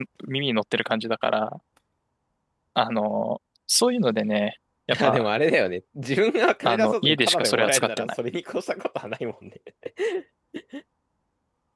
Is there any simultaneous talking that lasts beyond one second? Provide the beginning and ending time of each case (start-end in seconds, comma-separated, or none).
6.7-8.1